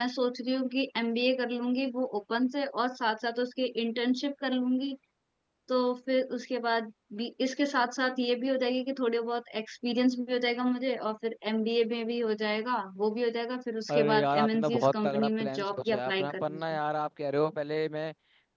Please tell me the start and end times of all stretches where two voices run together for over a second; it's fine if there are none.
13.9-16.6

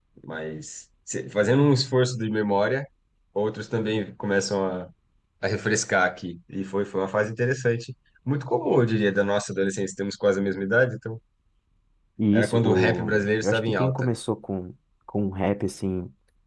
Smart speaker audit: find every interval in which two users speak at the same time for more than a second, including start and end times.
12.3-14.1

